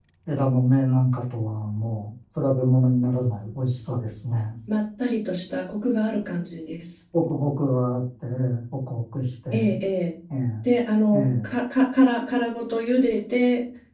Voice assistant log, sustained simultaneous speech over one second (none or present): none